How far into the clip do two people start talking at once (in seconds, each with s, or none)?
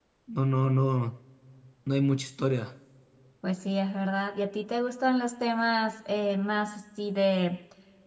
none